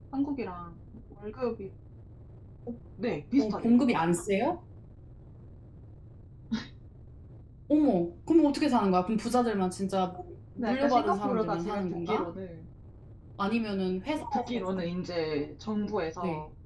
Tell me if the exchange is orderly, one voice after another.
No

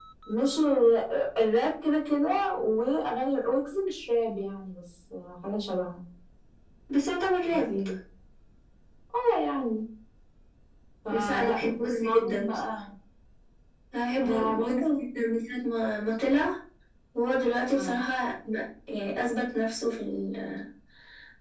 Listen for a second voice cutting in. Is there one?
Yes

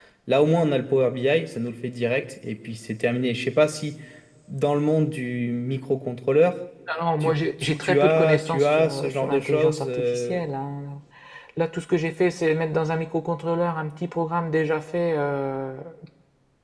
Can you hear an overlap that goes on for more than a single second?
Yes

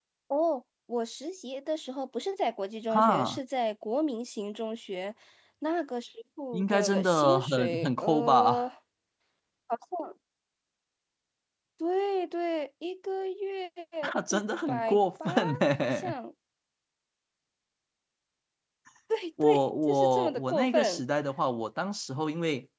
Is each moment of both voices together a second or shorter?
No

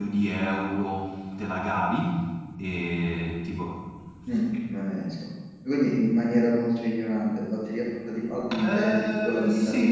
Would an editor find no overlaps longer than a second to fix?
No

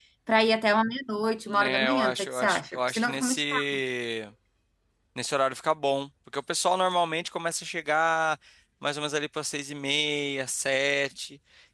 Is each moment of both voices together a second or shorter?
No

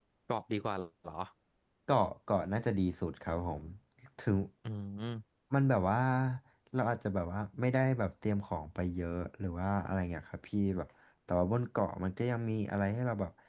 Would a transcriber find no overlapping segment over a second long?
Yes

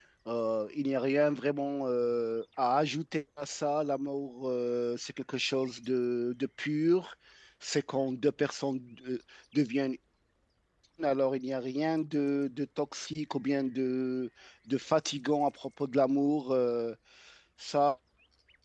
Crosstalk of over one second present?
No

